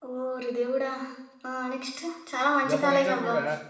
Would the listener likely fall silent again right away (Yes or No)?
Yes